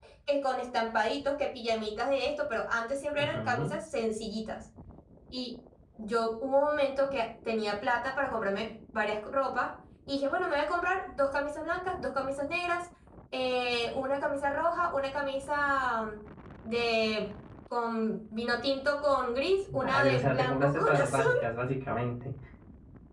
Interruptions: present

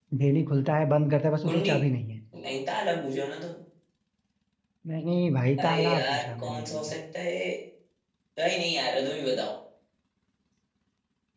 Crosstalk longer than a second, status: present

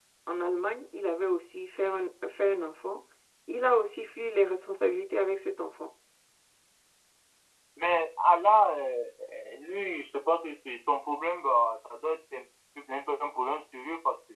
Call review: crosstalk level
none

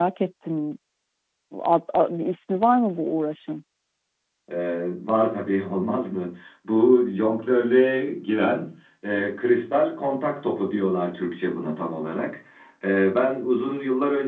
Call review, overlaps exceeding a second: none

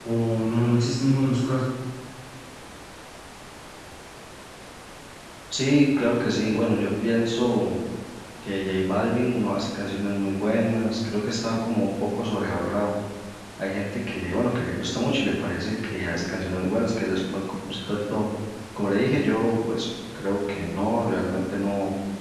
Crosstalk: none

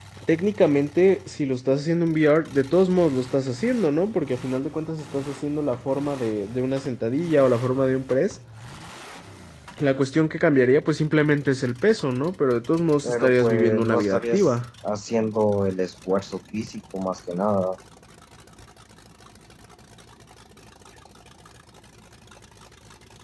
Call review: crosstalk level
present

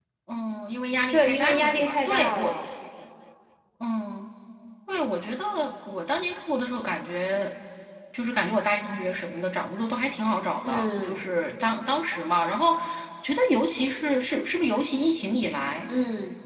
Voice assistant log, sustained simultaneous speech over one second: present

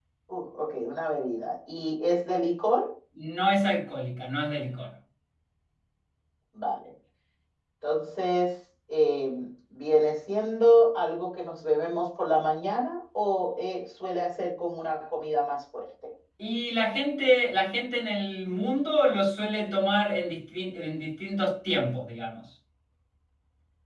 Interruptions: none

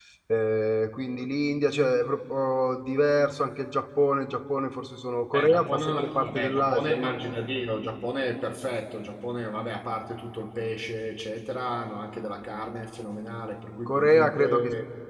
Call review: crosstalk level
present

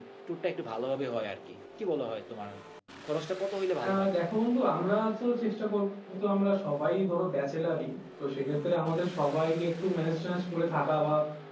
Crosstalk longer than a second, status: none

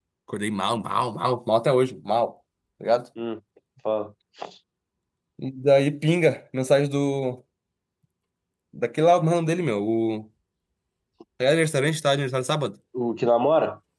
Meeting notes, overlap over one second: none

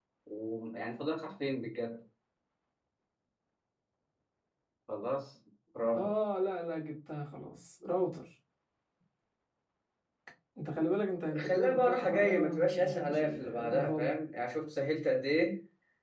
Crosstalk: present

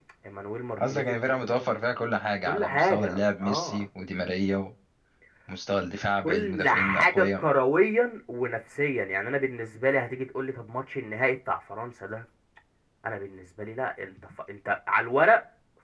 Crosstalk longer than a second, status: present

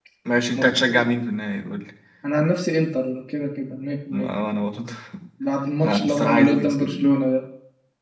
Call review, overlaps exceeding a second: present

